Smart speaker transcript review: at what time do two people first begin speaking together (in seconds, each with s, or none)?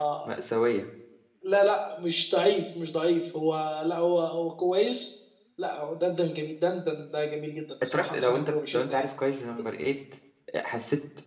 7.8 s